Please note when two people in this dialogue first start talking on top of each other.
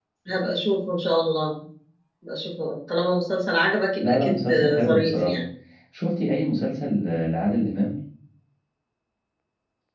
4.0 s

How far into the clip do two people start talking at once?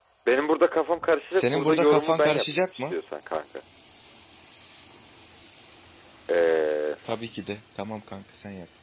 1.3 s

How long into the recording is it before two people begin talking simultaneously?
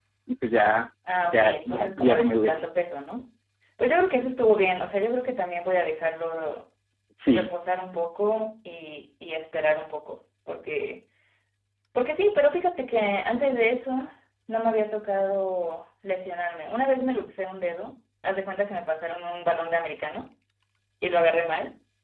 1.2 s

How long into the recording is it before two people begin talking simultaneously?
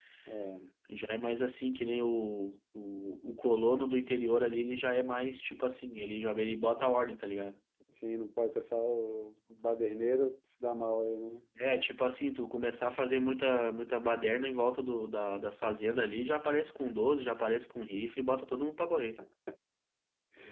none

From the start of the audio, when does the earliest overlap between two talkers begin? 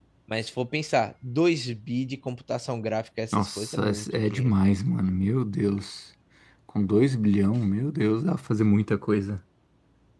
3.3 s

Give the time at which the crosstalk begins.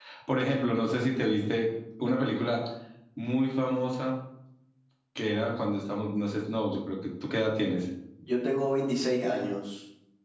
none

